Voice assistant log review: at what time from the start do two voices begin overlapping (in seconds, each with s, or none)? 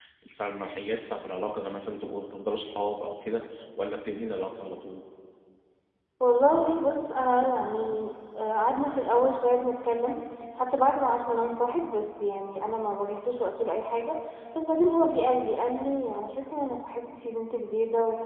none